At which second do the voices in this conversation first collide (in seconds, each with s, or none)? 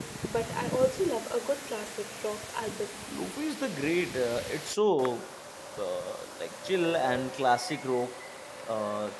none